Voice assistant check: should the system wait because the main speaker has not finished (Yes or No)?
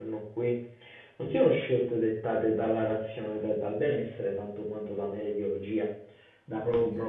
Yes